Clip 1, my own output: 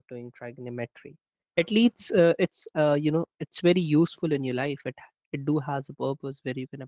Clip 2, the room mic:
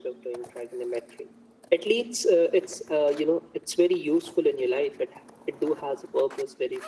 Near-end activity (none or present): none